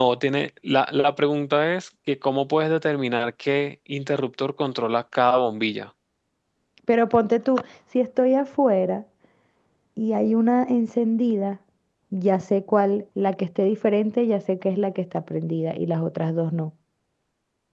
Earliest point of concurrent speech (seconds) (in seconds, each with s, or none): none